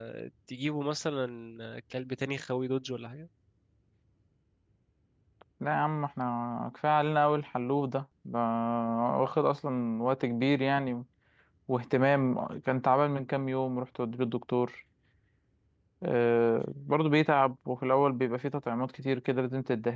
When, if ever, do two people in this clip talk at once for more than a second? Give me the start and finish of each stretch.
none

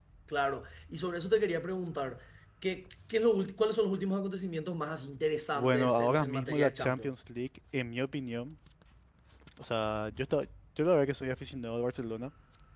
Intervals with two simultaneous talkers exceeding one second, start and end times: 5.5-7.1

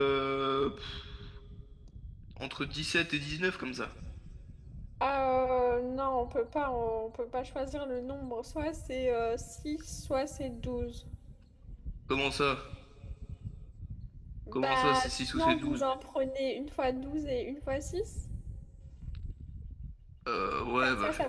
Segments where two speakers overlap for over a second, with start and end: 14.5-15.8

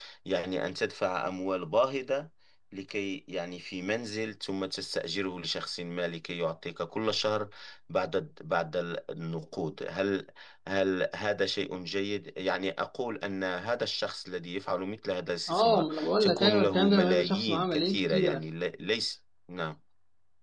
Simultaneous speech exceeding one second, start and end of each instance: 15.5-18.4

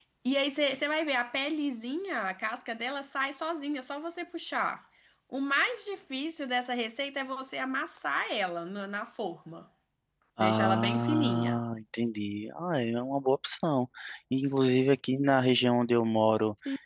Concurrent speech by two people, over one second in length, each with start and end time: 10.4-11.6

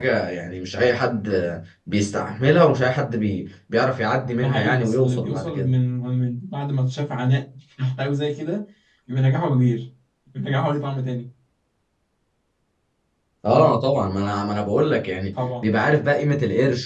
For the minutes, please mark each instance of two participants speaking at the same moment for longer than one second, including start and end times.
4.4-5.8

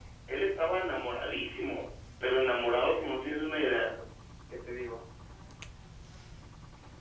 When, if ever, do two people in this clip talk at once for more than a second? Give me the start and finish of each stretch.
2.5-3.8

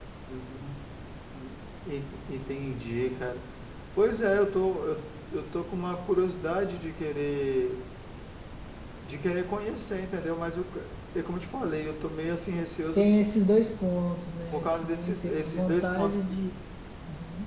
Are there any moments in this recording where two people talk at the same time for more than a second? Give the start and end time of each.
14.5-16.2

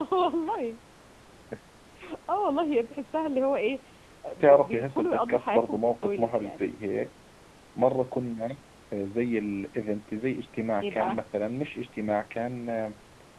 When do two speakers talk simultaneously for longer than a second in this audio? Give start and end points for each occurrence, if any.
4.4-6.7

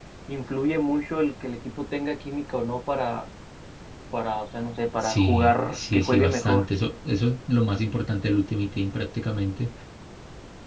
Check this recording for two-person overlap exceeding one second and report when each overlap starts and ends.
5.0-6.6

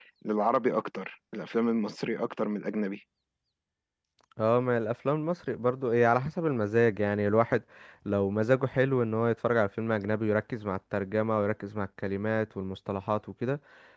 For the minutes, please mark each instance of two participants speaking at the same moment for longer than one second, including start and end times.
none

